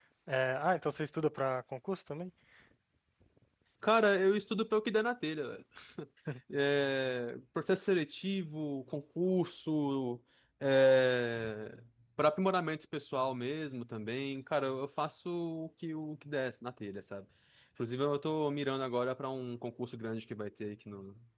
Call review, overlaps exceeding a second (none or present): none